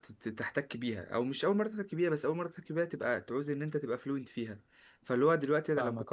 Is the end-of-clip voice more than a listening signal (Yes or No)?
No